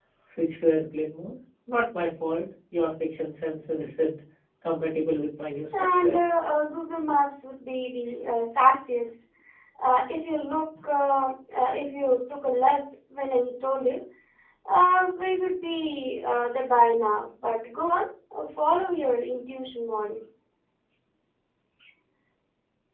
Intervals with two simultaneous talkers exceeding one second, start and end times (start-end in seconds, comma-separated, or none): none